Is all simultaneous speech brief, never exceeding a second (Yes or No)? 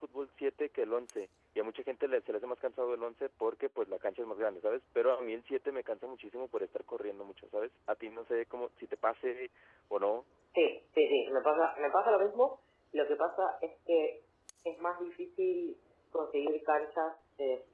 Yes